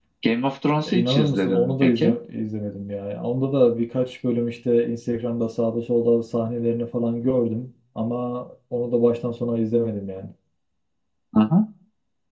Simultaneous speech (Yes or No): Yes